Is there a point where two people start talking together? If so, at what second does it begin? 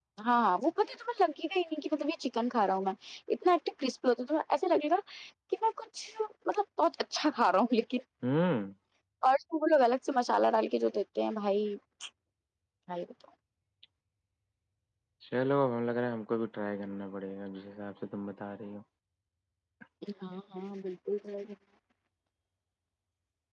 none

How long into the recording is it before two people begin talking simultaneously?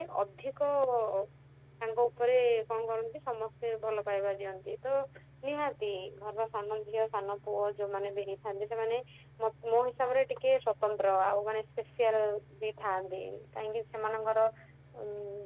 none

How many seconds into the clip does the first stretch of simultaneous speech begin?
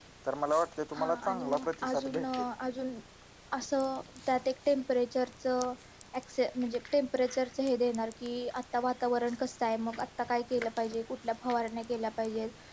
0.9 s

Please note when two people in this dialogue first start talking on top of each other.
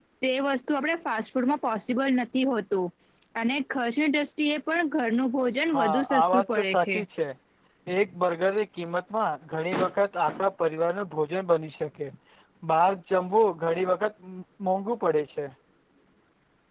5.7 s

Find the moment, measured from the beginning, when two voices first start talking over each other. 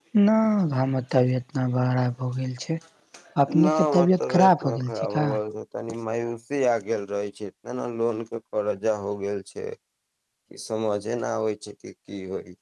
3.6 s

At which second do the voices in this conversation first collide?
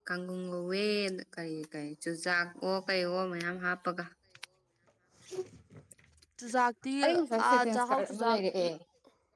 7.0 s

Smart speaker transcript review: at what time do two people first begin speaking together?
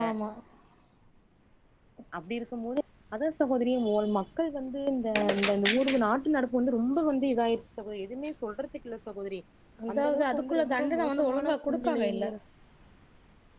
9.9 s

